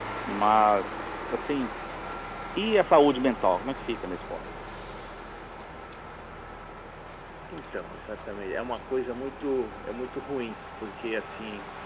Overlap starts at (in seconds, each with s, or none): none